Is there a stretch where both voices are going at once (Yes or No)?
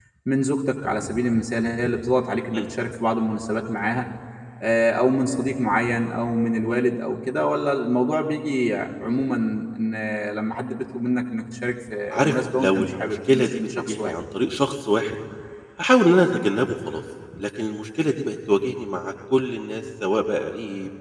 Yes